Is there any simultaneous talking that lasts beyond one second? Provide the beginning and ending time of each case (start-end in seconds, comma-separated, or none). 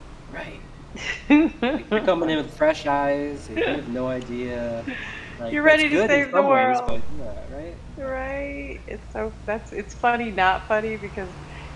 5.5-7.0